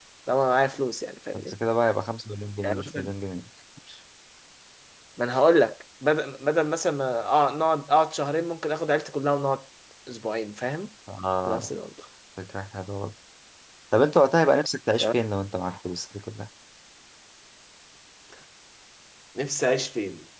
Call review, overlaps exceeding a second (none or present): none